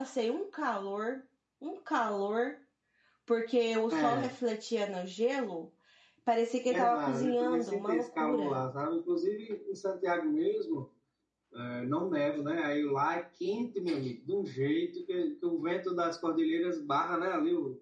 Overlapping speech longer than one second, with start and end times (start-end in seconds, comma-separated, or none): 6.7-8.6